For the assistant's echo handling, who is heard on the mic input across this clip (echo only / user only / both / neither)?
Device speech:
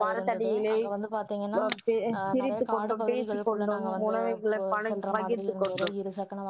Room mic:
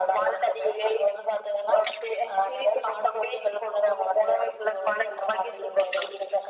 echo only